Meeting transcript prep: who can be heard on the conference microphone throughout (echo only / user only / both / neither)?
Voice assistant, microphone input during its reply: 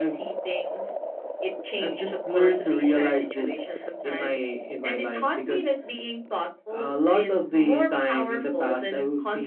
echo only